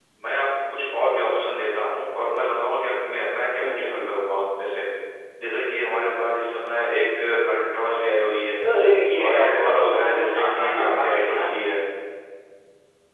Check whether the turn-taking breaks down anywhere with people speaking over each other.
Yes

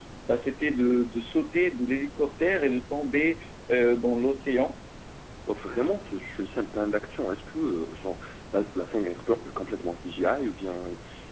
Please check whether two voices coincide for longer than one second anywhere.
No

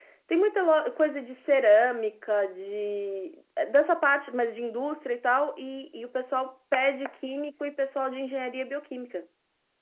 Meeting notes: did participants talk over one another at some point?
No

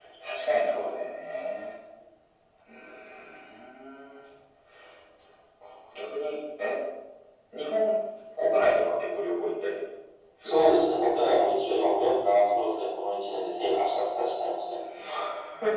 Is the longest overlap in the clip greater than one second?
No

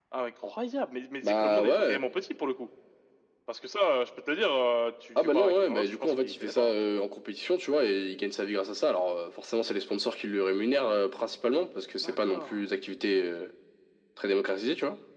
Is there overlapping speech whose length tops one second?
Yes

